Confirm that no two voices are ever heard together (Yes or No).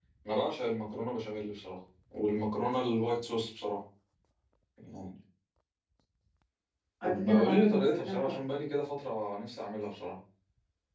No